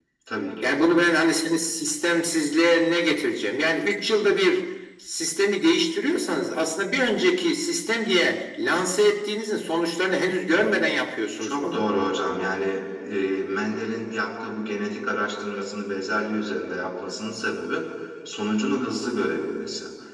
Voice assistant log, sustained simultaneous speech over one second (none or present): none